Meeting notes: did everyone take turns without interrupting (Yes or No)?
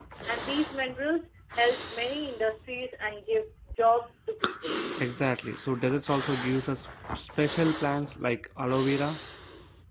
Yes